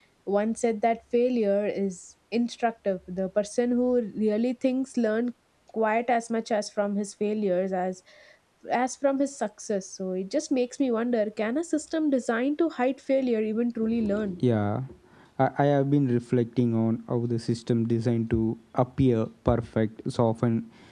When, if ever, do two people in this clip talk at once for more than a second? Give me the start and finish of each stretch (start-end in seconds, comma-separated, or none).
none